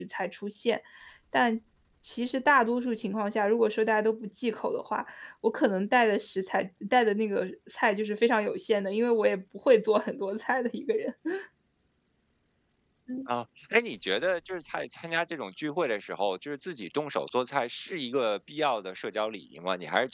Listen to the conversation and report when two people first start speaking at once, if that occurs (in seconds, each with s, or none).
none